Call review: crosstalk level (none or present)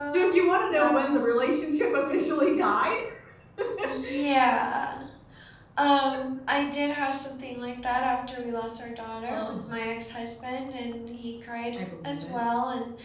present